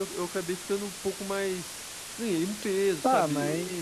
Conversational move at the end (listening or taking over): taking over